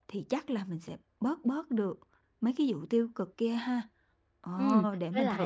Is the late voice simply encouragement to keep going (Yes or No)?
No